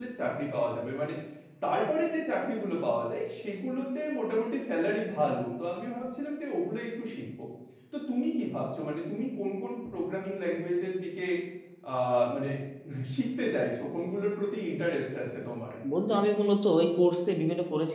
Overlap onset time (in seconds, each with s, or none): none